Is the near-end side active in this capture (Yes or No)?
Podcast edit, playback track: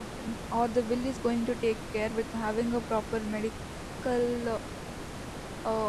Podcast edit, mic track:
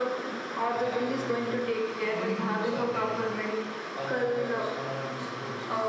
Yes